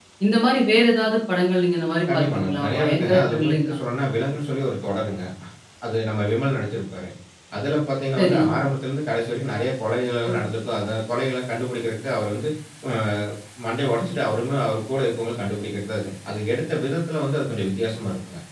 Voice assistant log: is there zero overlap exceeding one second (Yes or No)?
No